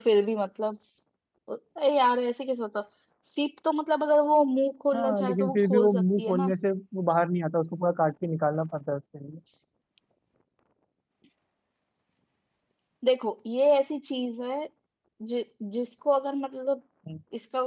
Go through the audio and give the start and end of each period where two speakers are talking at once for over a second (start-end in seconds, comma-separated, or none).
4.9-6.5